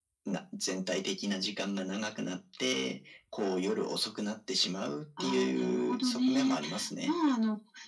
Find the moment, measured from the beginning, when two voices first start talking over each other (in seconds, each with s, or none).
5.2 s